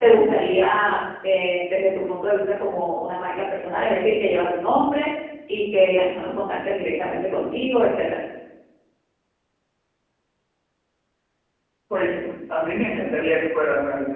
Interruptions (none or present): none